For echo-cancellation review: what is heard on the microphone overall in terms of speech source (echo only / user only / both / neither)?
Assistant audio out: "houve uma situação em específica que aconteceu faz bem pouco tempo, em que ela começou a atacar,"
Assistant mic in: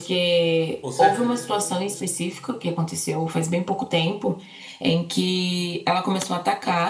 both